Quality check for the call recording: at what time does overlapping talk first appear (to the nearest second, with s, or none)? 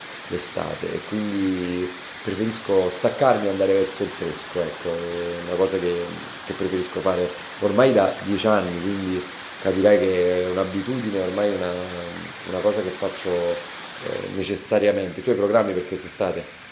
none